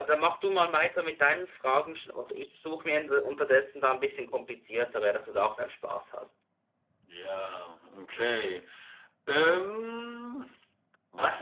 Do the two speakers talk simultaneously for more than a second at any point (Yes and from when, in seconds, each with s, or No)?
No